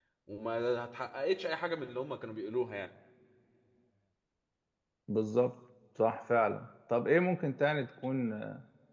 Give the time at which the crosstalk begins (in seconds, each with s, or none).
none